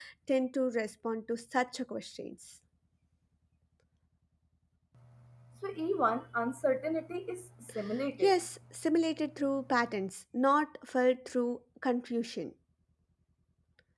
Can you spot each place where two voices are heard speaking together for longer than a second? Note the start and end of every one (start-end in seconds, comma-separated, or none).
none